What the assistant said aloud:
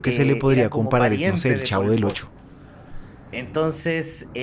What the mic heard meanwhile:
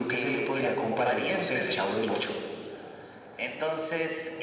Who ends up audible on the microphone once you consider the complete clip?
echo only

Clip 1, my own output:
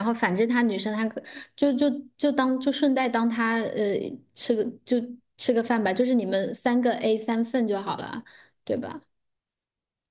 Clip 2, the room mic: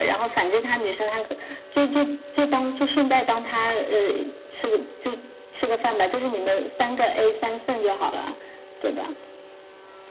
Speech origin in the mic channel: echo only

